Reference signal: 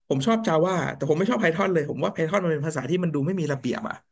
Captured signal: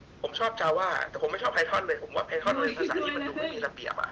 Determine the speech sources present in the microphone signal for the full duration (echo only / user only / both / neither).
both